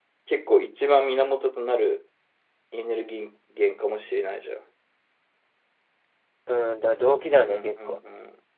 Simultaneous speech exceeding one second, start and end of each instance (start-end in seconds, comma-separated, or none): none